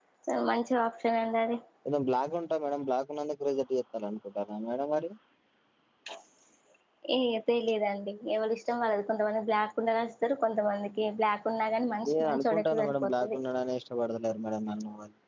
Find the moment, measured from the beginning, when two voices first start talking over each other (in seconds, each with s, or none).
12.0 s